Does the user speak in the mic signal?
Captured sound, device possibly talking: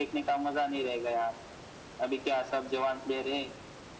No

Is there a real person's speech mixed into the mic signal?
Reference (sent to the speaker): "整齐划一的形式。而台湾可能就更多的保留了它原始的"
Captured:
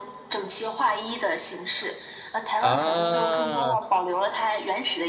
Yes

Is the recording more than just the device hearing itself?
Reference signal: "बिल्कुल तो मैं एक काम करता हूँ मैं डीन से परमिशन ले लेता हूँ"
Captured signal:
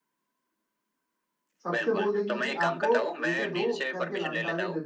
Yes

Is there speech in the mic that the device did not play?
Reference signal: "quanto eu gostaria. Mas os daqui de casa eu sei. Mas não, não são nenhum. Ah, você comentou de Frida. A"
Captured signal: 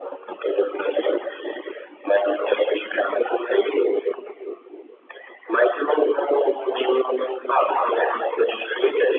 No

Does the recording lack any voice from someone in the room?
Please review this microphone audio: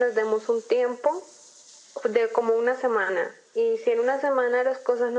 Yes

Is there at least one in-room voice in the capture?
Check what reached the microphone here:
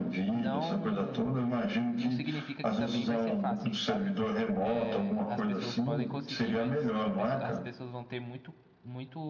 Yes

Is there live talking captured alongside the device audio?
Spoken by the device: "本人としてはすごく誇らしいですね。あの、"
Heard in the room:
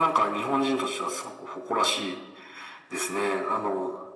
No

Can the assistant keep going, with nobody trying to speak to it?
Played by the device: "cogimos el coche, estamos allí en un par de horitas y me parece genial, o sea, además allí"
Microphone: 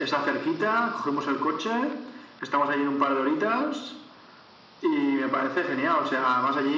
Yes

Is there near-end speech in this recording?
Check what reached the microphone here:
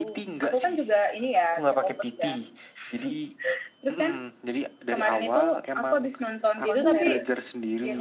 Yes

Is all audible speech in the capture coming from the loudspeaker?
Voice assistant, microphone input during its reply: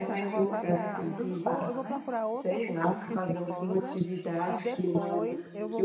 No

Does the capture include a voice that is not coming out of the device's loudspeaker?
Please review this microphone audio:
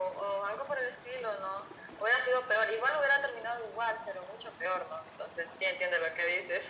No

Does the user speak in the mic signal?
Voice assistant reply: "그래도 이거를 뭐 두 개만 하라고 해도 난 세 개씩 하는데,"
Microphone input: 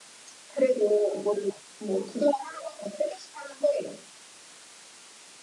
No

